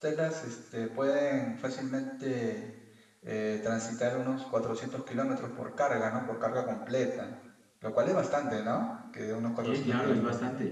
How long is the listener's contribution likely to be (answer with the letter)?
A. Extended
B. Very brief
A